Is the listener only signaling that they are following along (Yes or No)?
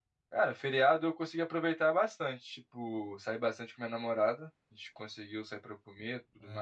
Yes